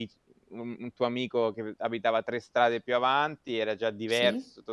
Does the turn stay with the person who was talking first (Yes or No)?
Yes